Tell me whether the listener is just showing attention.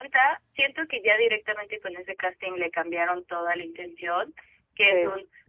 Yes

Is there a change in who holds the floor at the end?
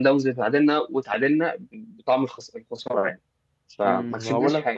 Yes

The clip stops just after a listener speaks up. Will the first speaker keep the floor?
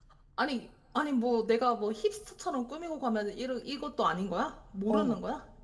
No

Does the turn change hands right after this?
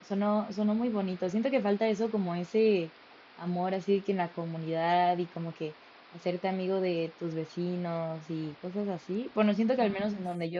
No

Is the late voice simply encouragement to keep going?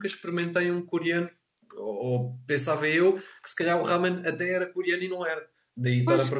No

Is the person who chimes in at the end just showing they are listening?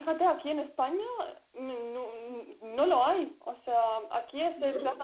Yes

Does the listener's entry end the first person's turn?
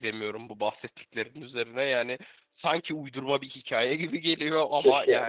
Yes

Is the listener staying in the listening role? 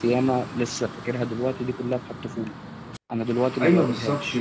No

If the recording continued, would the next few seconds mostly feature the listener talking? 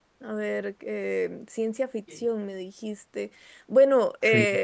No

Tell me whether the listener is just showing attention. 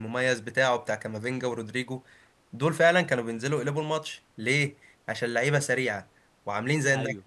Yes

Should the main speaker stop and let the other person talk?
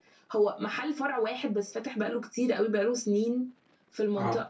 No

